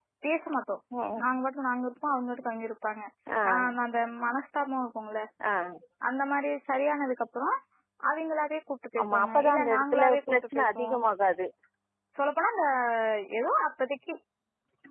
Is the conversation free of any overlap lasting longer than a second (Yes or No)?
No